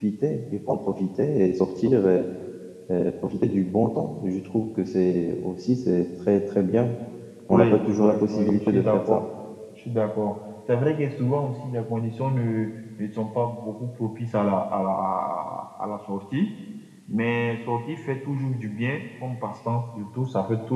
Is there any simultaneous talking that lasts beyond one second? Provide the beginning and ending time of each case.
7.5-9.2

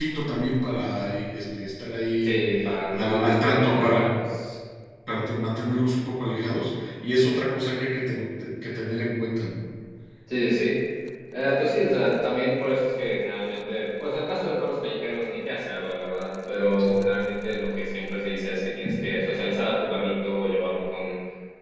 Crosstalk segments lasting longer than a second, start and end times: 2.9-4.1

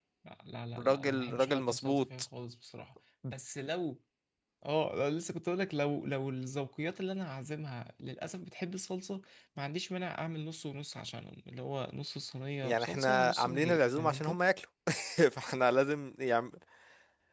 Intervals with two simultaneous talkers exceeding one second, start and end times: 0.8-2.2, 12.6-14.4

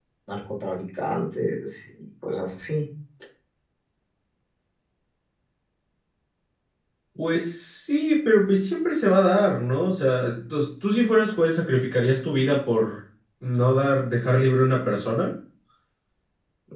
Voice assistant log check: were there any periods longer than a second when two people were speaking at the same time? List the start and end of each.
none

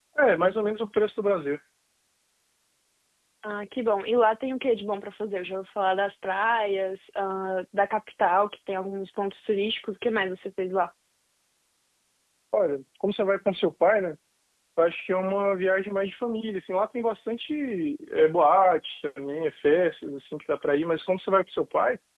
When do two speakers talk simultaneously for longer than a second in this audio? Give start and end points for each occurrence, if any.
none

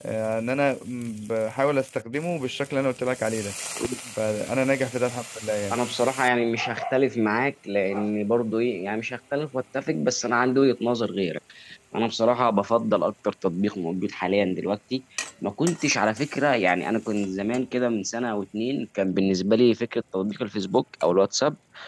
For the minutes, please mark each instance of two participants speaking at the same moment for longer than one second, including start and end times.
none

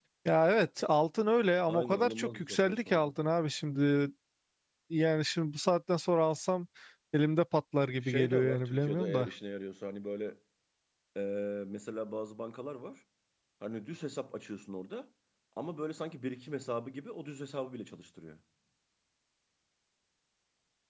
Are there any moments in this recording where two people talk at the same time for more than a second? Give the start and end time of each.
1.7-3.1, 8.0-9.3

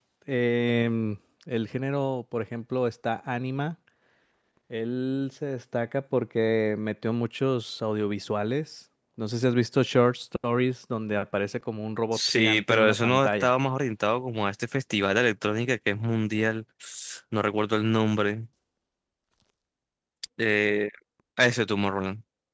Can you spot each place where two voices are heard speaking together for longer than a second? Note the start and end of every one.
12.1-13.5

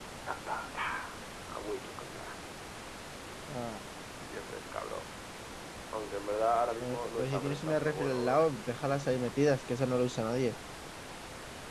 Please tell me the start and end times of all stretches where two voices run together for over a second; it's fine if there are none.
6.8-8.4

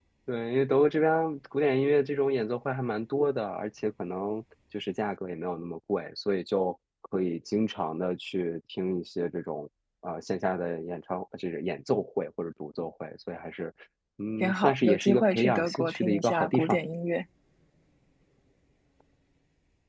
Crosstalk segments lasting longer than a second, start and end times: 14.4-16.8

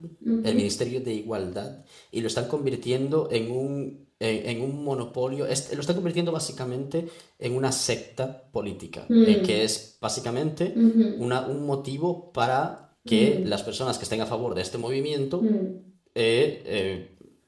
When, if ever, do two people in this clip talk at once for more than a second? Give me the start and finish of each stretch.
none

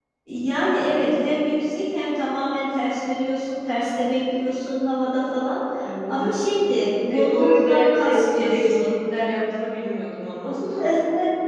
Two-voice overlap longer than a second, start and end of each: 7.1-8.9

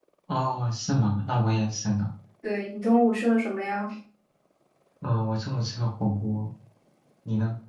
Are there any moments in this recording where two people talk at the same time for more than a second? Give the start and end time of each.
none

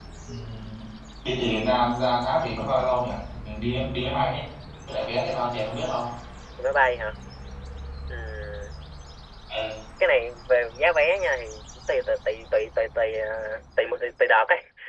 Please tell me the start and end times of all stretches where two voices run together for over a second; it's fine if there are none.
none

